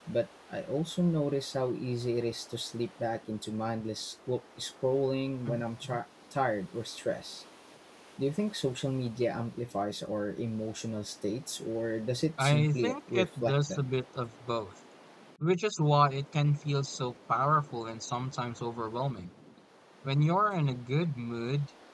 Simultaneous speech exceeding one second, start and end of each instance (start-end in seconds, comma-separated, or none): 12.4-13.9